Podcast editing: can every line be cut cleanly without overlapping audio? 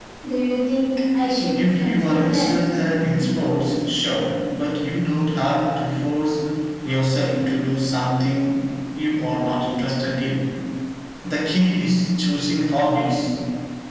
No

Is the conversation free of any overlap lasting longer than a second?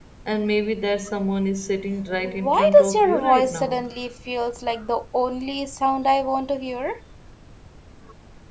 No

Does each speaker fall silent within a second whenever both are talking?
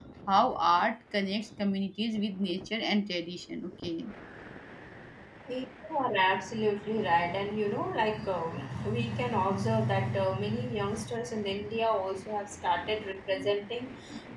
Yes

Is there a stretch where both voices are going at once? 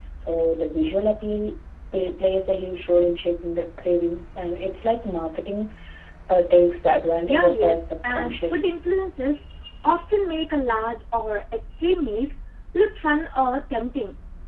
Yes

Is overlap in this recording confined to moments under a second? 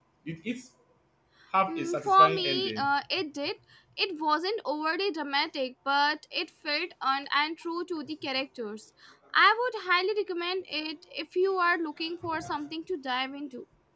No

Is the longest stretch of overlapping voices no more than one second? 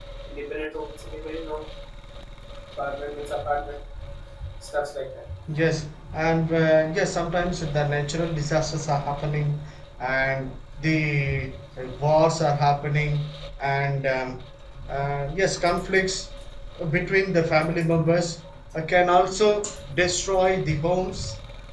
Yes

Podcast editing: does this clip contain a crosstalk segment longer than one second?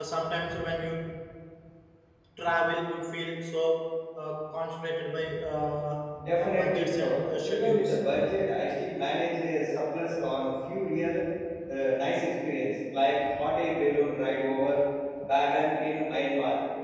Yes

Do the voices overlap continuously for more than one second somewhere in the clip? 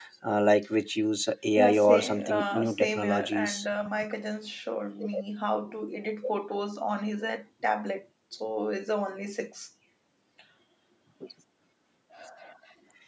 Yes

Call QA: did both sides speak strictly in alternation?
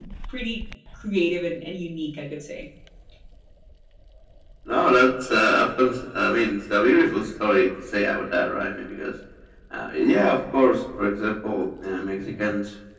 Yes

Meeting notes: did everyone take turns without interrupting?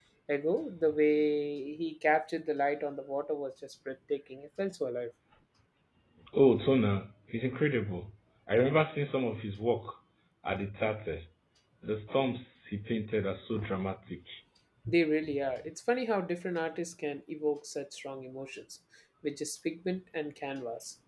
Yes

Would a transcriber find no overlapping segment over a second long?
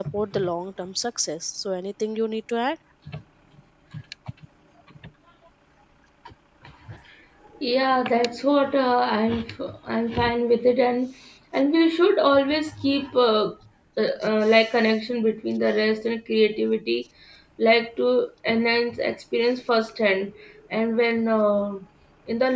Yes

